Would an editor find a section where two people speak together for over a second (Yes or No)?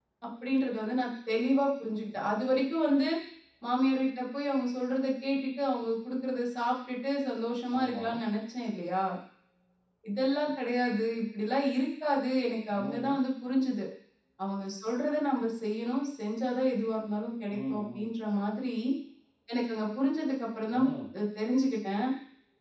No